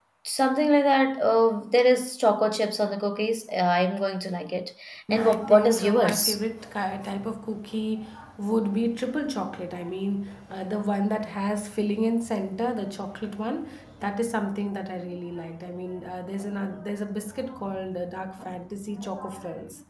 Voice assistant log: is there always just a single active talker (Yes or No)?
No